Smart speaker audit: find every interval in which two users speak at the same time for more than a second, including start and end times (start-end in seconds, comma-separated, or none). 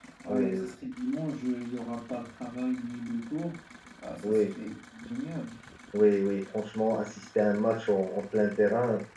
none